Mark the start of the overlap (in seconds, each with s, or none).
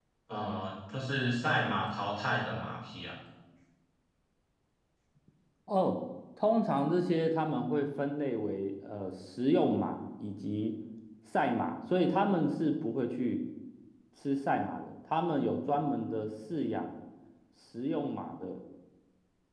none